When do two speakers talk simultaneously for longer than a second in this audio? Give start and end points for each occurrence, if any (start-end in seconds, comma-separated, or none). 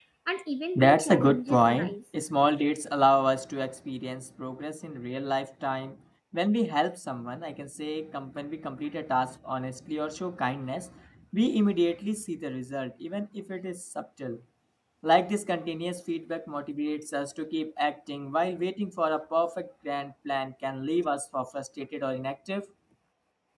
0.8-1.9